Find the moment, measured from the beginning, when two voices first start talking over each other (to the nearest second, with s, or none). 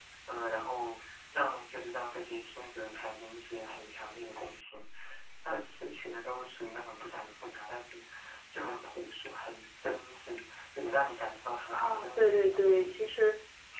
12 s